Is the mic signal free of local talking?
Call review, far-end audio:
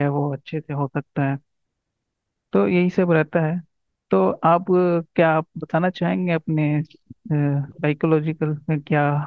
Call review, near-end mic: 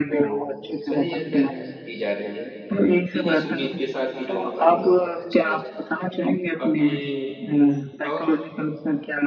No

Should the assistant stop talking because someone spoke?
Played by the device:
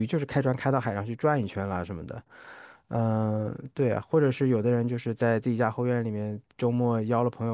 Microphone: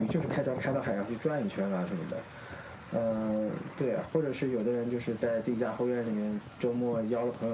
No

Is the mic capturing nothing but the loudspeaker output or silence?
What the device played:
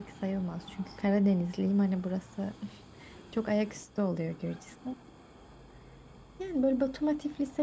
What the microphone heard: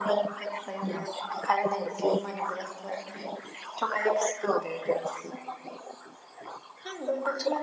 Yes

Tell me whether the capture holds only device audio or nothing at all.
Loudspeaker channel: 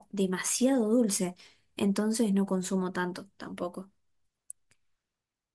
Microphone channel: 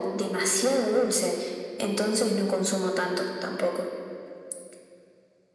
Yes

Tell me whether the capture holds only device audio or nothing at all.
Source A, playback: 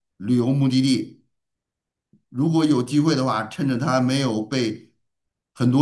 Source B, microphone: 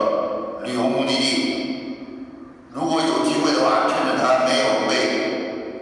Yes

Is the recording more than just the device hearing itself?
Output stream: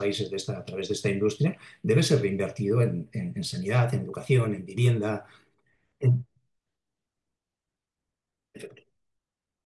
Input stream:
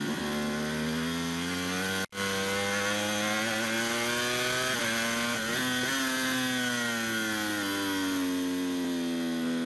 No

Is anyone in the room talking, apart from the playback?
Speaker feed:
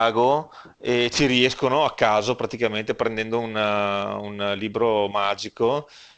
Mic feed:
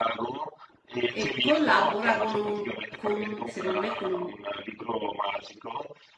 Yes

